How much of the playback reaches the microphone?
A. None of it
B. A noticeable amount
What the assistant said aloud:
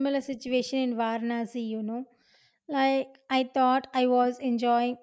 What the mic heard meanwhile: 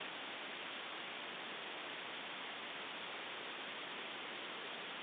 A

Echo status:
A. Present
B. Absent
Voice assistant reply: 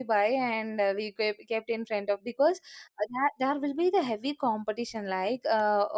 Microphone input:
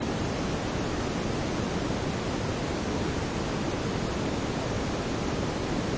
B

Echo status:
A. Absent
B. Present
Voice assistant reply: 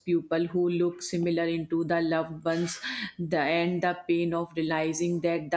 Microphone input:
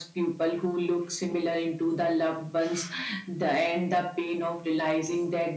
B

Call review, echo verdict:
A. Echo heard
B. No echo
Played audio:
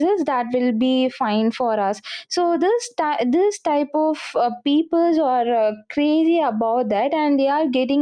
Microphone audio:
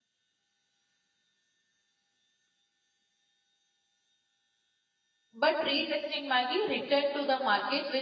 B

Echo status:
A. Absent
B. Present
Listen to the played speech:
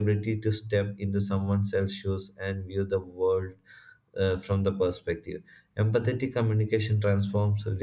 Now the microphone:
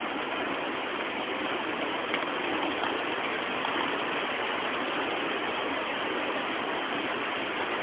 A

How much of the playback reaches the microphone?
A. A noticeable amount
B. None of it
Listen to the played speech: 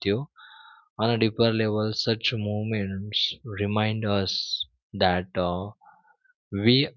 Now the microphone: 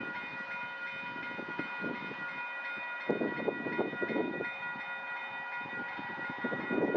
B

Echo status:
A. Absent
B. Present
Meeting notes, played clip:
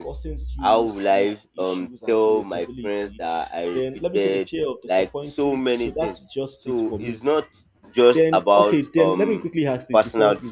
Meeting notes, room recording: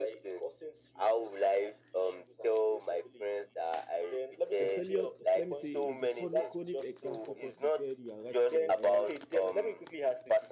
B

